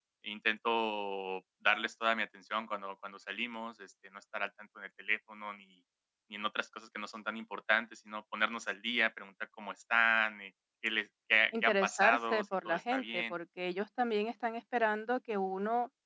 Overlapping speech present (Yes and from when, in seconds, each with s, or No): Yes, from 11.5 s